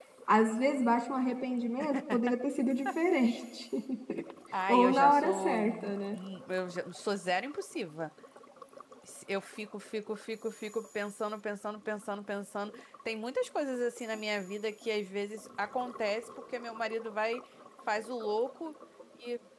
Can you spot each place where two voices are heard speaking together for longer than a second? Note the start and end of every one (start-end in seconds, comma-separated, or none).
4.7-6.2